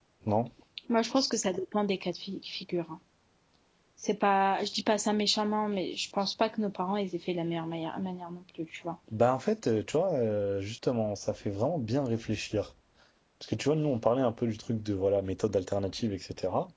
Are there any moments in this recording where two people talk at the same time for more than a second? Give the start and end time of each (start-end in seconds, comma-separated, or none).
none